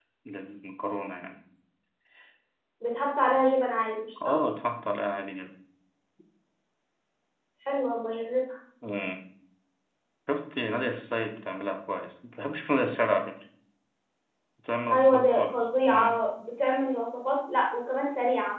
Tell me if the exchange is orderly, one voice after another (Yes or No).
No